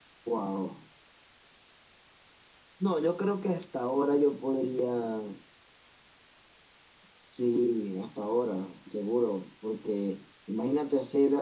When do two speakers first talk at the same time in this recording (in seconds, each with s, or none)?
none